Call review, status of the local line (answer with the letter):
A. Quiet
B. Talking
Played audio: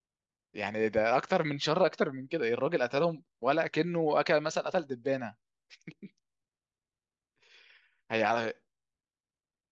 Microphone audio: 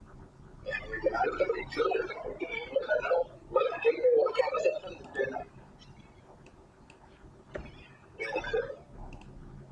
A